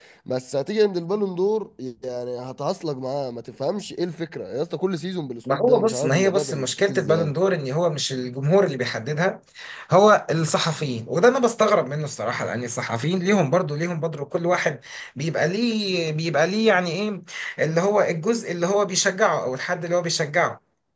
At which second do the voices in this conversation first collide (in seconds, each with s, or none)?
5.5 s